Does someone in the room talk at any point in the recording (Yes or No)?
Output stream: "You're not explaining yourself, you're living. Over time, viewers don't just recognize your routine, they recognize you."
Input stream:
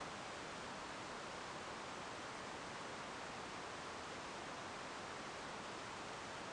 No